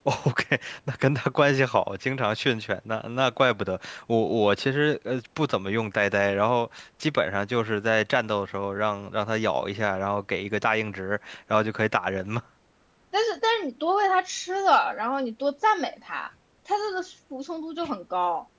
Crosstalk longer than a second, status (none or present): none